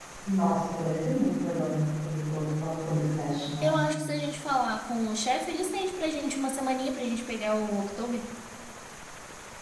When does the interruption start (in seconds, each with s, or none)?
none